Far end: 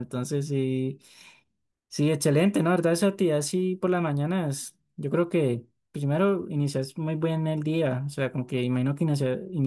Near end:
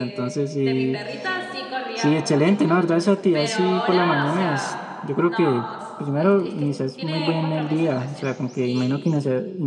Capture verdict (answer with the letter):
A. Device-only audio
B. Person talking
B